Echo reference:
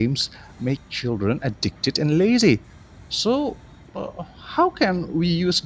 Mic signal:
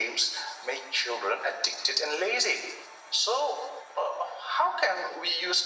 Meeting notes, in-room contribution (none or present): none